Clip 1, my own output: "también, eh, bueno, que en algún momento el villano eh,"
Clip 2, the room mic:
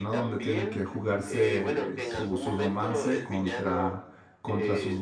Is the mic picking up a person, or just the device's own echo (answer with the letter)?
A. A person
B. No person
A